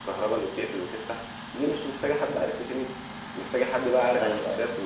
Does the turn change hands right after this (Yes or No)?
No